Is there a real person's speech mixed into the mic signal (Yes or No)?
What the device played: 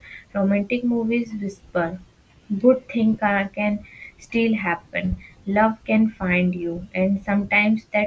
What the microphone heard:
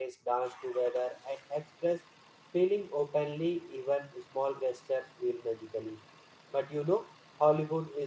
Yes